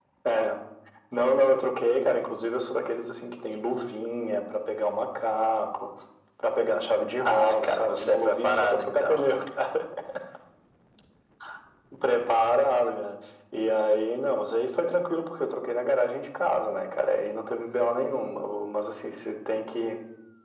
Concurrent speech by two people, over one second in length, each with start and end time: 7.2-9.3

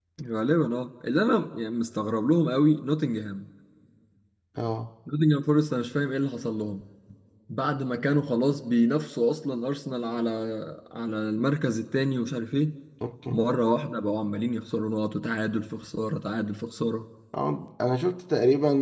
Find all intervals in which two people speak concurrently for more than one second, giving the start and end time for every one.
none

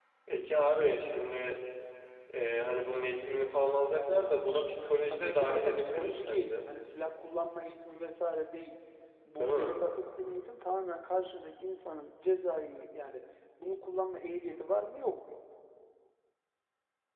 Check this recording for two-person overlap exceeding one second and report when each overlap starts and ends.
5.1-6.7

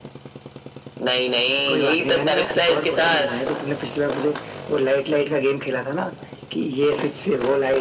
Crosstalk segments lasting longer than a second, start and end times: 1.7-3.4

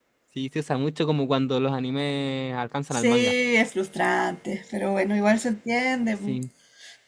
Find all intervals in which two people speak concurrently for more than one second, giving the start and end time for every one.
none

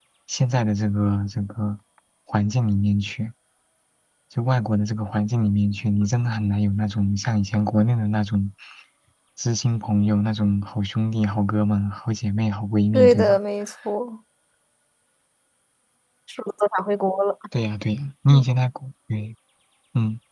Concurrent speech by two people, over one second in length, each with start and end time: none

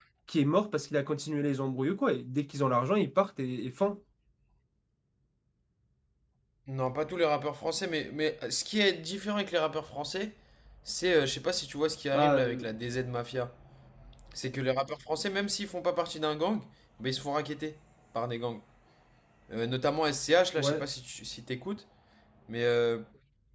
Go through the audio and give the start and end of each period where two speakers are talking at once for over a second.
none

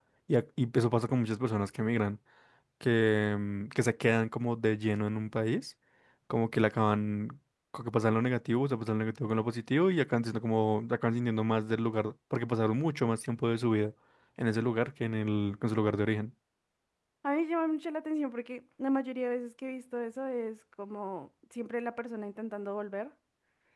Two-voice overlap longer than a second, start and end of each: none

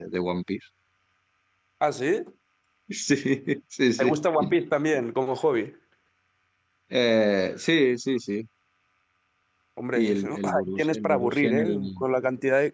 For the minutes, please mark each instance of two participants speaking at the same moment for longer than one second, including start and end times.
9.9-12.0

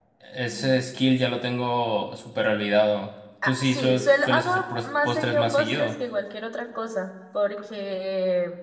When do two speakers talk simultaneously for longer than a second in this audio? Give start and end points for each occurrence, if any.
3.4-5.9

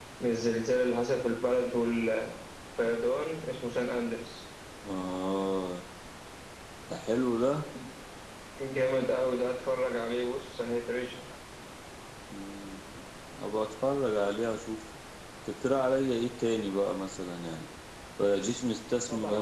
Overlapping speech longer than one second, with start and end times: none

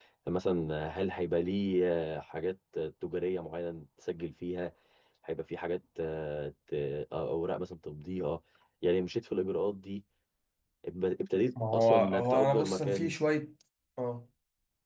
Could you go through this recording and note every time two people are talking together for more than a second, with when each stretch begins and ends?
11.7-13.1

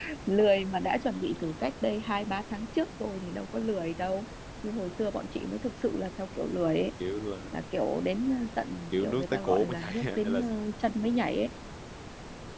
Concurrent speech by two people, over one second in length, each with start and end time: 8.9-10.4

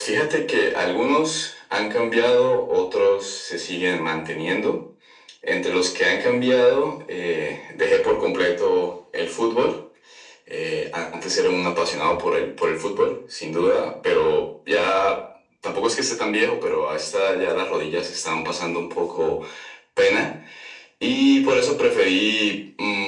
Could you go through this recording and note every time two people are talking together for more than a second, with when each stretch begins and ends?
none

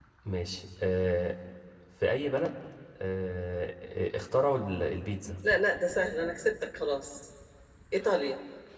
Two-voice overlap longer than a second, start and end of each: none

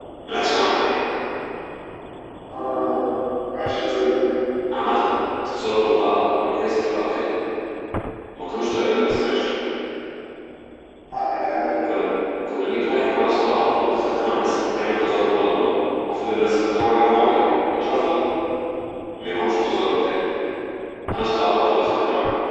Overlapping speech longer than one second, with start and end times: none

